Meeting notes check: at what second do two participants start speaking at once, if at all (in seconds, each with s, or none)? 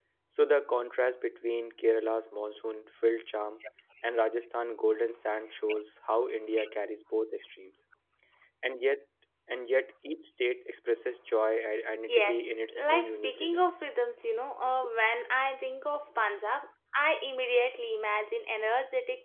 12.1 s